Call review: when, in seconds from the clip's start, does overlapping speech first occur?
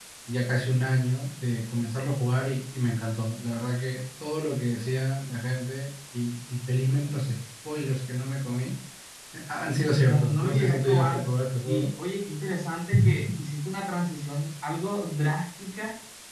9.6 s

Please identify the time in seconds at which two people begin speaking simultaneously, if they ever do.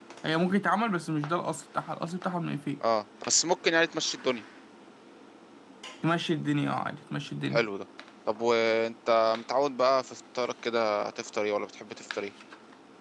none

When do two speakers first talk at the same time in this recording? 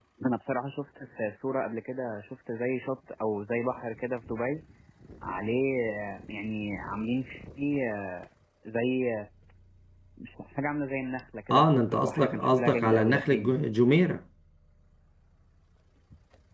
11.5 s

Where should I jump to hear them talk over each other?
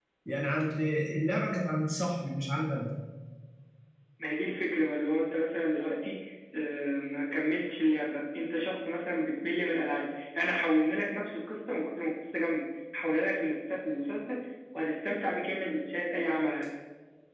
none

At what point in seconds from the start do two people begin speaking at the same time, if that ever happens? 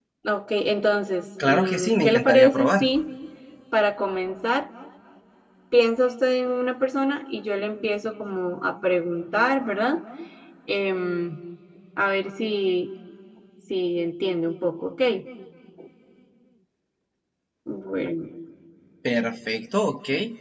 1.4 s

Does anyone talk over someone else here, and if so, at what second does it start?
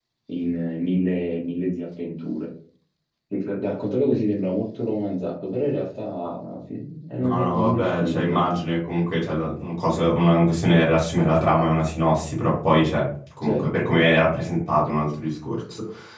7.2 s

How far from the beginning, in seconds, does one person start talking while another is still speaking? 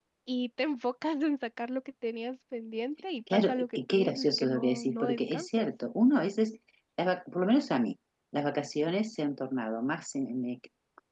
3.3 s

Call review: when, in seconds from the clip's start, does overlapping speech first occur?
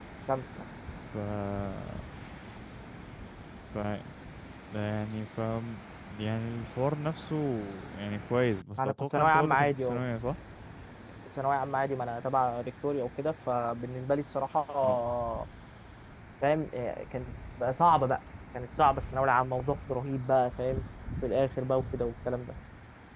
8.8 s

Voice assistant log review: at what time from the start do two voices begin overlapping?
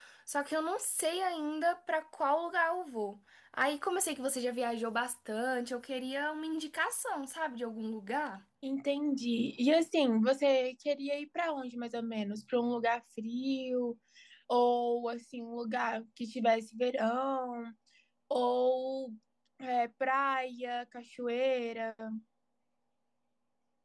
none

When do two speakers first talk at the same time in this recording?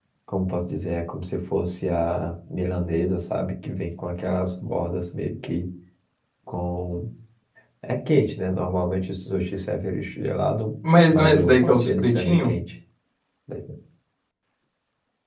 11.1 s

